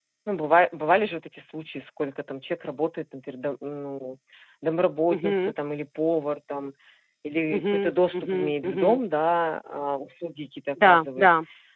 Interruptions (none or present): present